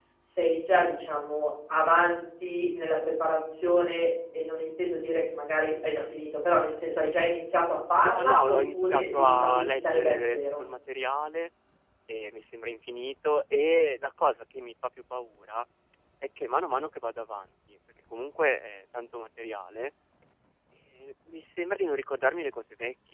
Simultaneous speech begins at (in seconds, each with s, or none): 8.0 s